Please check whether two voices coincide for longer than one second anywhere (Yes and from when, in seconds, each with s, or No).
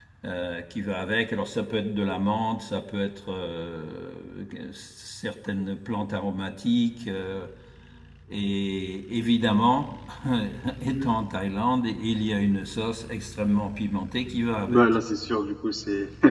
No